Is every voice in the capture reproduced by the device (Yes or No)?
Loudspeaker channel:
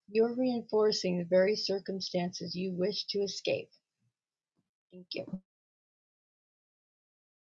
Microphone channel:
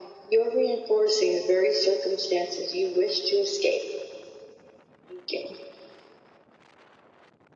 Yes